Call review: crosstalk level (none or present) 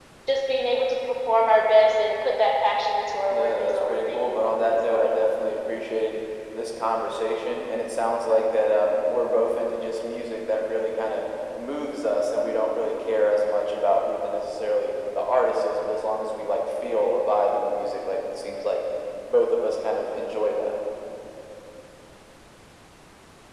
present